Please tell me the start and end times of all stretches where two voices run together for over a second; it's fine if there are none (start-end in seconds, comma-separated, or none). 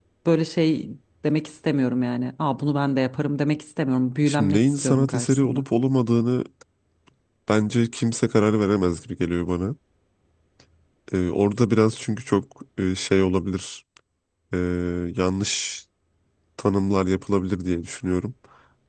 4.3-5.6